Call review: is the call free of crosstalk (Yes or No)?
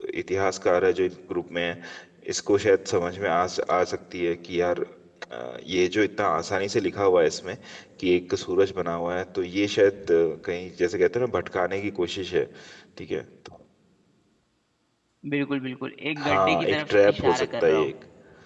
No